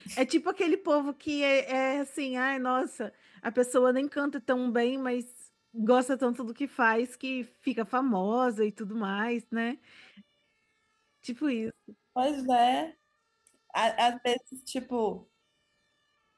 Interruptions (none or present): none